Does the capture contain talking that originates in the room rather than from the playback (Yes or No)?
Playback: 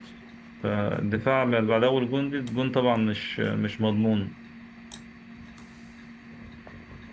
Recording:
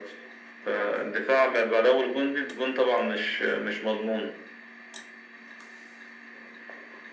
No